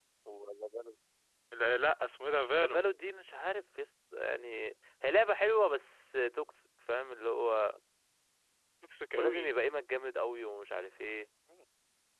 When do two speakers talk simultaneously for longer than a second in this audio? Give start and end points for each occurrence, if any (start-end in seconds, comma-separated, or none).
none